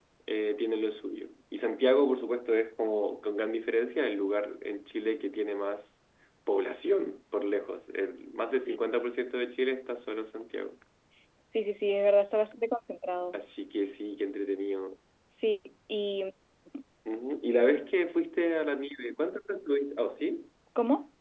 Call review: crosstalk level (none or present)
none